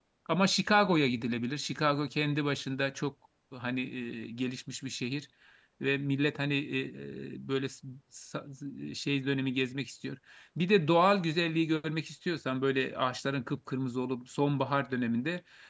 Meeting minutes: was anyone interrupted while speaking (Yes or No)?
No